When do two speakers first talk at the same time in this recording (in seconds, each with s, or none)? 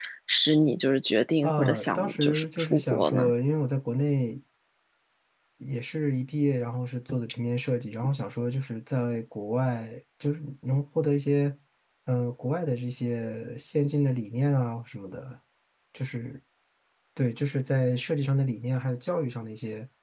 1.4 s